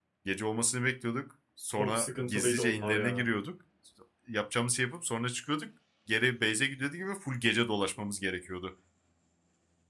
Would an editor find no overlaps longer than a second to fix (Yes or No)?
No